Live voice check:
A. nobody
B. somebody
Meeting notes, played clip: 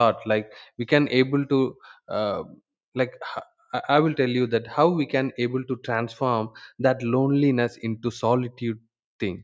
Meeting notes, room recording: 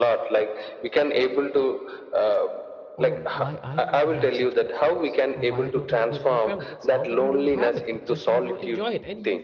B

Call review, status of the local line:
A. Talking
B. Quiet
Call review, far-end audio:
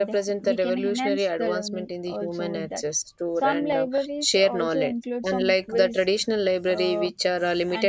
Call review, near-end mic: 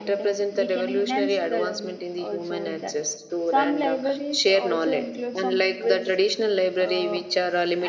B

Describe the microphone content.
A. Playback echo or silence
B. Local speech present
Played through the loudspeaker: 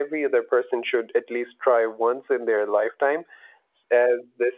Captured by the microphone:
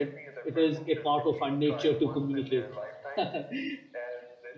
B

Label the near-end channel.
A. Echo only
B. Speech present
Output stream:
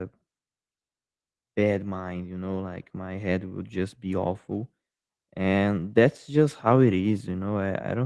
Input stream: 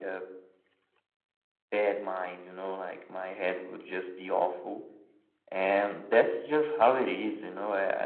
A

